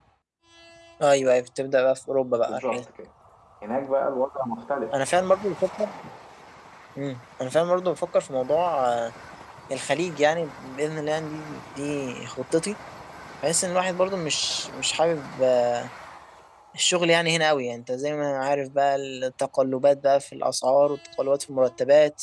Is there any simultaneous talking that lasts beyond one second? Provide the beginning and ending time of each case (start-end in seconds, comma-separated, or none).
none